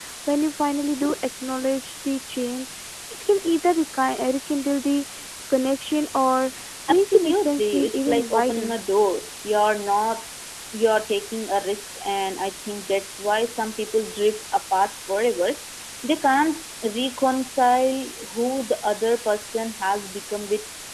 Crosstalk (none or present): present